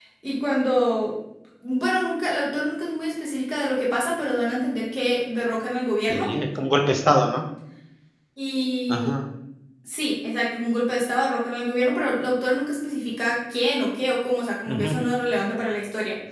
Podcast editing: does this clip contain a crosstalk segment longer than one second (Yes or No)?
No